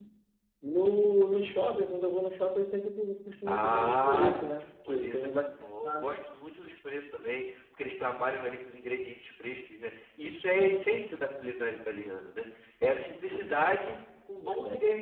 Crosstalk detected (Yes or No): Yes